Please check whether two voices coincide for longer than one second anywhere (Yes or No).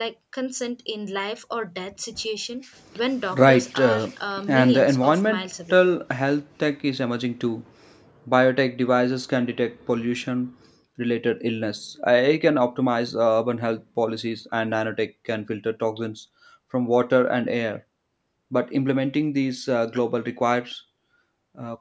Yes